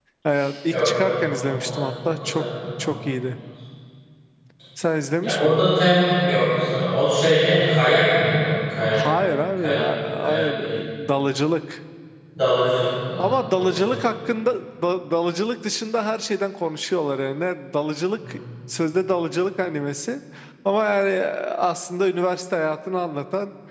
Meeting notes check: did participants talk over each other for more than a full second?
Yes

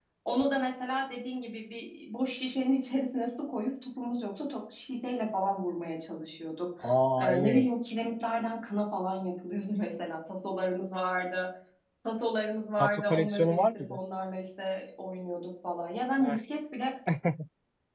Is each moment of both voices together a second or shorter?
No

